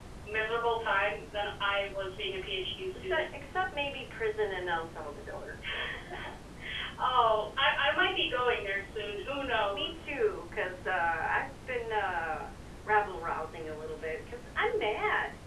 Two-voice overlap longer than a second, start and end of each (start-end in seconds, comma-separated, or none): none